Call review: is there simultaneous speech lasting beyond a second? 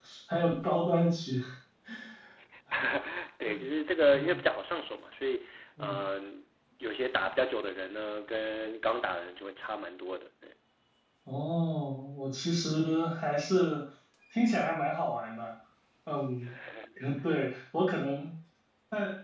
No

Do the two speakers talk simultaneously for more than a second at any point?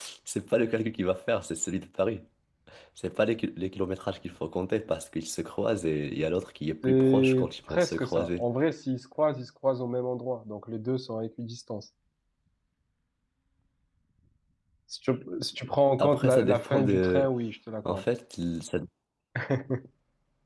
Yes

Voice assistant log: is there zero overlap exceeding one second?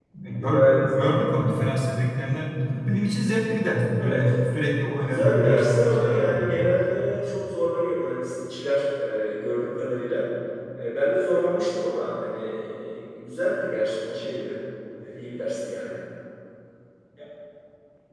No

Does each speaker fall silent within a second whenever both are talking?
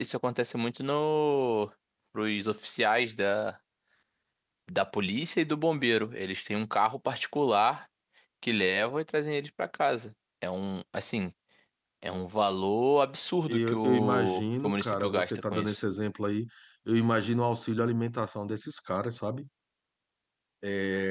No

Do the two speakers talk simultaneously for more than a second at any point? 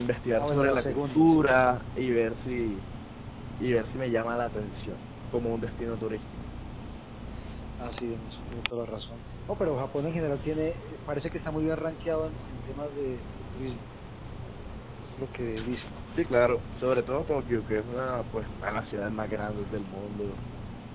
Yes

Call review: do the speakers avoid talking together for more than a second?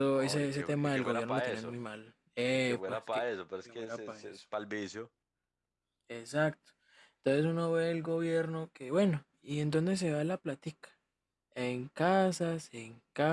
No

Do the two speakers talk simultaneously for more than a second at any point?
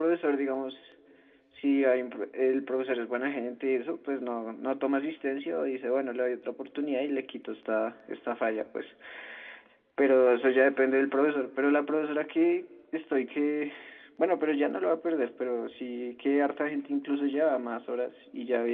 No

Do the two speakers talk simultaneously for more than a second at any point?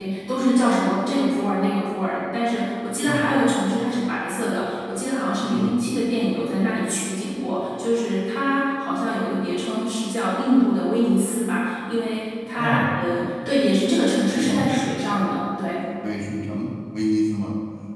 No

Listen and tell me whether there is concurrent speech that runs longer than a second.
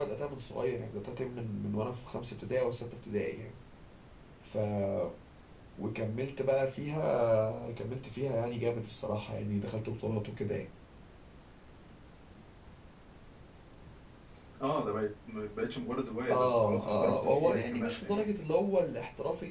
Yes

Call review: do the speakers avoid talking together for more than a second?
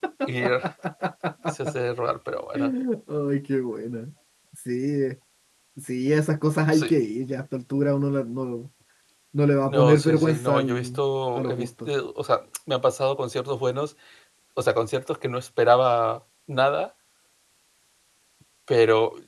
No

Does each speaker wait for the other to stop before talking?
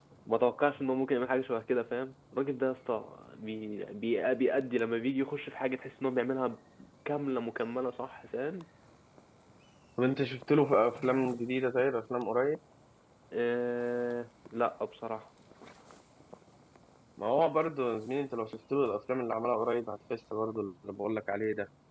Yes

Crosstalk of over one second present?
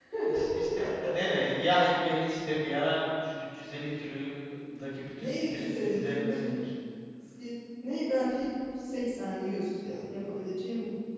Yes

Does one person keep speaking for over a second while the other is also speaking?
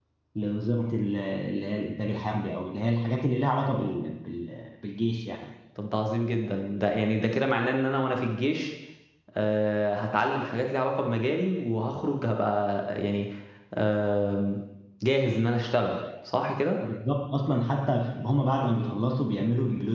No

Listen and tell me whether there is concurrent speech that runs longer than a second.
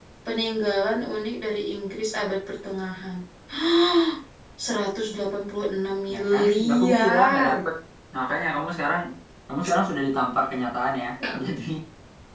Yes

